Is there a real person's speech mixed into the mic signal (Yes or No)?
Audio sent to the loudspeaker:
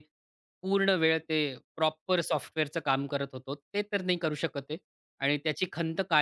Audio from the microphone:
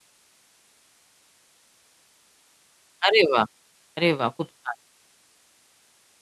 Yes